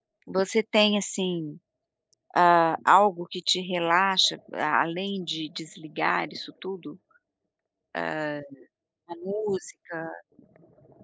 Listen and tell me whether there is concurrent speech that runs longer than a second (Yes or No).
No